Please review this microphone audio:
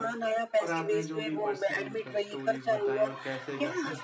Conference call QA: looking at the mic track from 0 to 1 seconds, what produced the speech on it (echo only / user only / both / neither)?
both